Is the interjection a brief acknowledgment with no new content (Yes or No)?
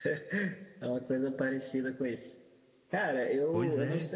Yes